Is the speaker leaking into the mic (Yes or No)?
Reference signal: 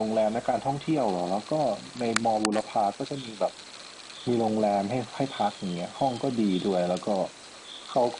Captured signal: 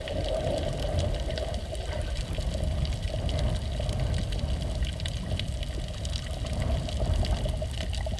No